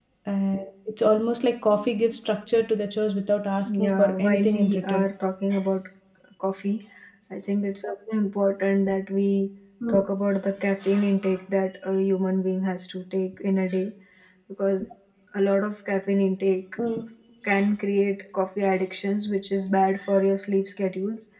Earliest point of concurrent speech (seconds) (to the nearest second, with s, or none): 4 s